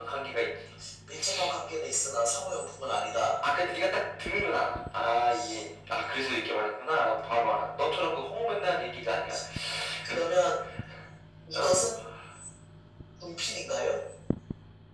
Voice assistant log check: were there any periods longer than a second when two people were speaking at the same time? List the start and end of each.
none

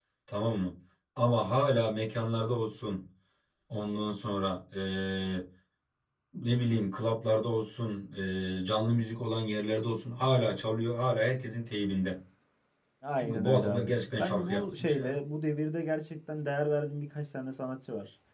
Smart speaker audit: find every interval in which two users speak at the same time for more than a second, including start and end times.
13.2-15.2

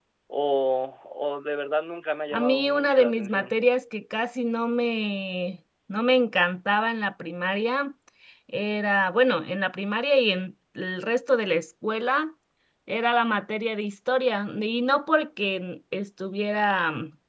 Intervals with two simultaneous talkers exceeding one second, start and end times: 2.3-3.6

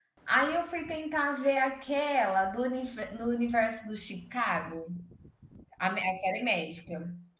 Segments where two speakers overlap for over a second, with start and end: none

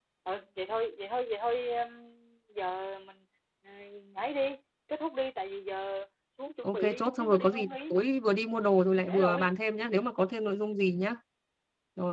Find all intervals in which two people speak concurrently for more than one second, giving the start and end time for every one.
6.6-8.0

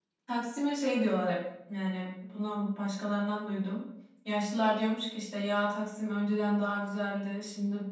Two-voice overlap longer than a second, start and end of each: none

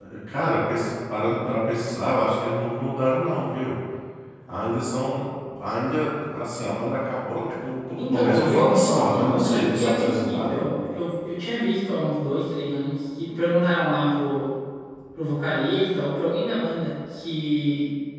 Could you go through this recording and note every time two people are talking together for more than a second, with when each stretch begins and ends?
8.0-10.6

